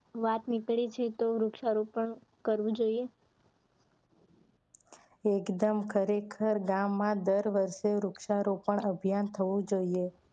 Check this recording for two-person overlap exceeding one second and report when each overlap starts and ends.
none

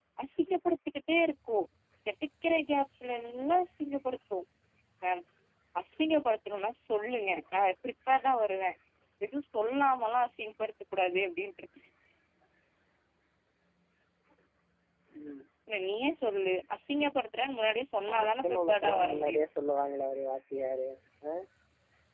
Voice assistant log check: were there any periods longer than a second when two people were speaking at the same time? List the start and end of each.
18.1-19.4

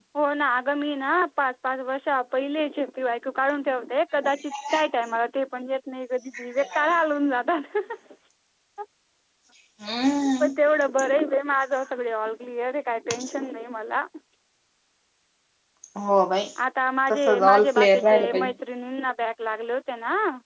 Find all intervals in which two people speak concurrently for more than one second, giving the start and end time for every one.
17.3-18.5

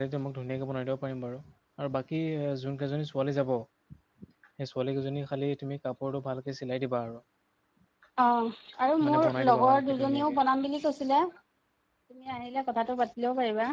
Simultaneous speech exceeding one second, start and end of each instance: 9.0-10.3

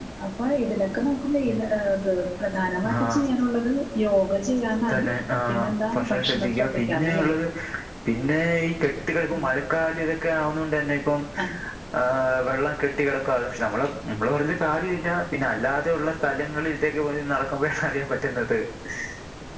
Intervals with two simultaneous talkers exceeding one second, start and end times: 5.5-7.3

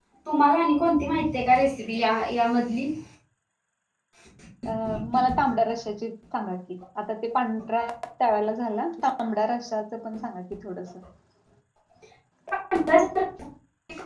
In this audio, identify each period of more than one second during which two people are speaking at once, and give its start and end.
none

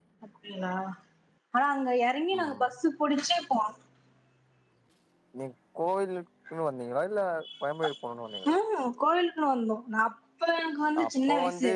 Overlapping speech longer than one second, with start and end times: none

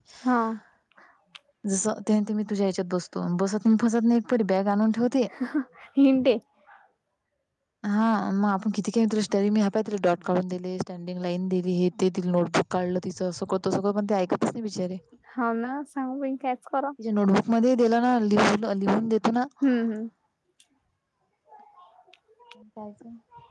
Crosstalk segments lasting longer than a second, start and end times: none

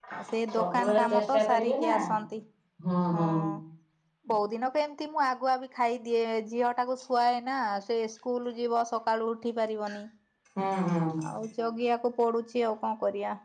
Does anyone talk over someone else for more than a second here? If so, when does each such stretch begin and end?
0.5-1.9

